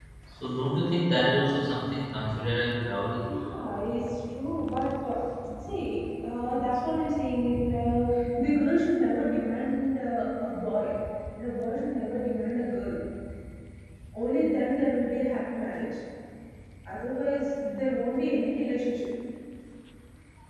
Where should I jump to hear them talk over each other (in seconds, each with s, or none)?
none